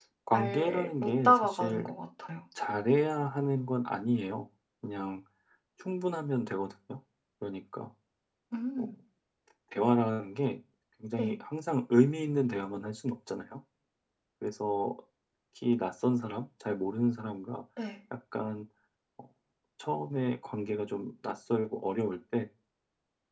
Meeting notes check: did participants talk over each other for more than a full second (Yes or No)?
Yes